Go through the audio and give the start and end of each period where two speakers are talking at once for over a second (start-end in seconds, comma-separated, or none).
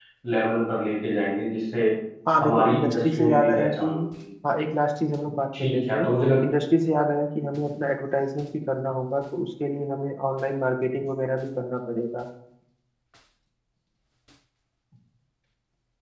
2.4-3.9